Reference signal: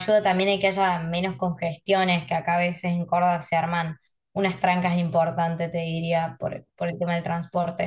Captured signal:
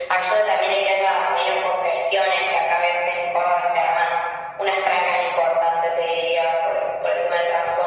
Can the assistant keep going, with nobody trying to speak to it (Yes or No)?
Yes